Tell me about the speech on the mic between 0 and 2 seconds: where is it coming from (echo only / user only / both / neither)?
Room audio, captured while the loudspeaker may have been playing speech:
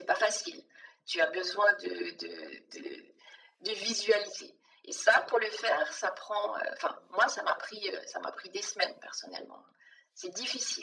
echo only